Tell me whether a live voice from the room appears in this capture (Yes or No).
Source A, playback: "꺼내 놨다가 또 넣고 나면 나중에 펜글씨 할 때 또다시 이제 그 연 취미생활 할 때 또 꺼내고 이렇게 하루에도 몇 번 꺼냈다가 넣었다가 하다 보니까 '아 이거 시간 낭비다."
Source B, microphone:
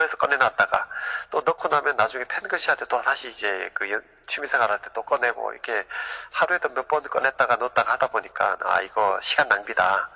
No